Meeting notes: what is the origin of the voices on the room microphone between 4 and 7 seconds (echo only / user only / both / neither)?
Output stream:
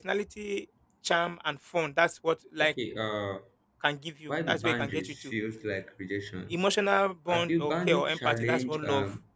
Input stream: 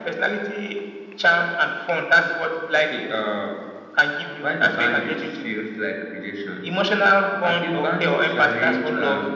echo only